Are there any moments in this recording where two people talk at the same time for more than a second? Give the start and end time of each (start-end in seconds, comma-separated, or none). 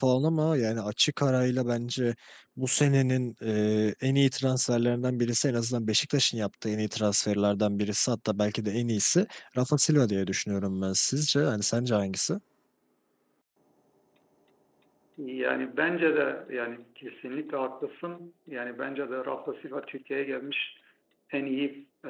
none